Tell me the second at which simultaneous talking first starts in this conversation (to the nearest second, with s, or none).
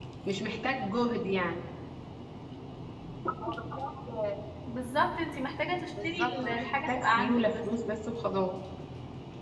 6 s